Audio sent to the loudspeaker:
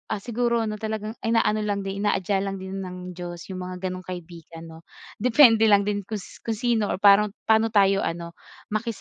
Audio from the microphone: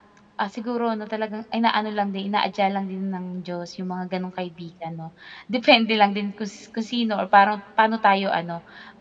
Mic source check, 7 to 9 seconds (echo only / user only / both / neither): echo only